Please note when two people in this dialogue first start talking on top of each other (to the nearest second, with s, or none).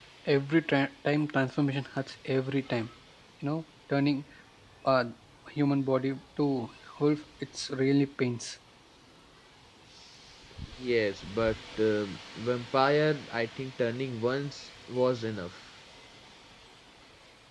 none